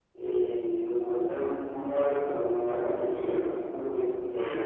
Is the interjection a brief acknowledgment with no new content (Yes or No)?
Yes